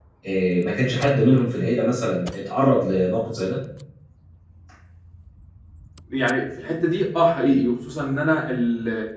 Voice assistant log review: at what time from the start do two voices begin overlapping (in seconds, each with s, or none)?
none